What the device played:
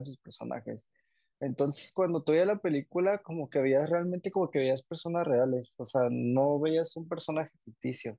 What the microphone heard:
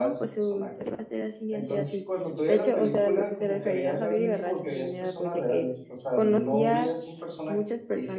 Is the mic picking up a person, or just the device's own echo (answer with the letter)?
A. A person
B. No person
A